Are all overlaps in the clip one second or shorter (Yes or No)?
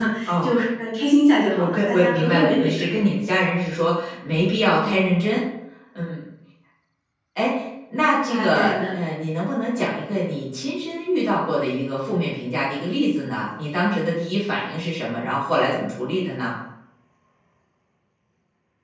No